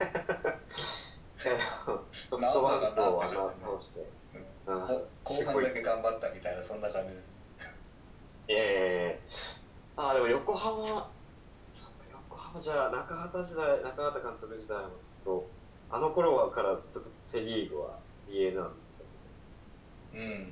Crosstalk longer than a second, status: present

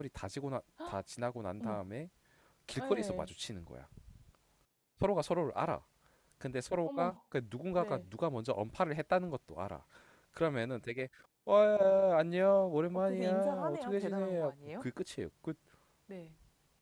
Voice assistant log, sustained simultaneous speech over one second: present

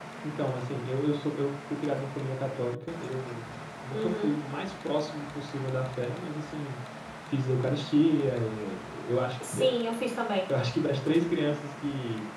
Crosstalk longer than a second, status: none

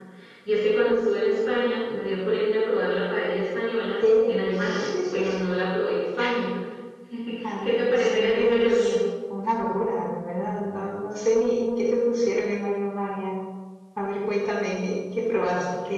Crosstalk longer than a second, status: present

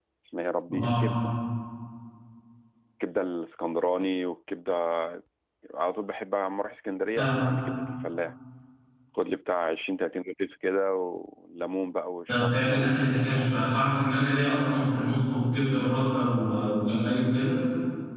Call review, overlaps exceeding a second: present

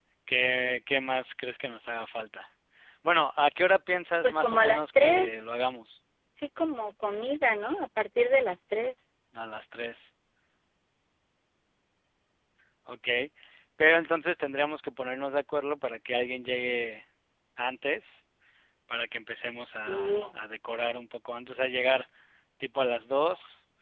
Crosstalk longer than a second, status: present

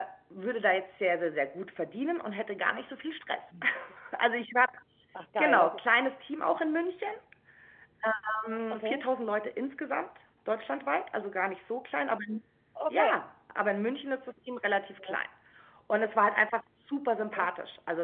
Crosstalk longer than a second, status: none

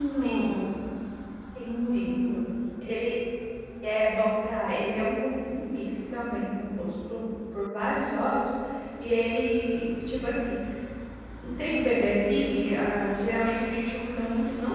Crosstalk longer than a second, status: none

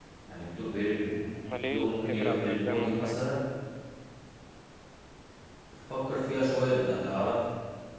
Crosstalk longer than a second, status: present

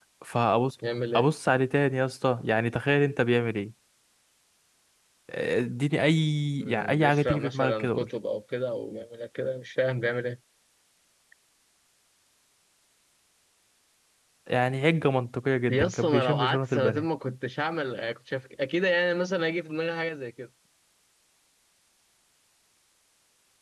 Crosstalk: present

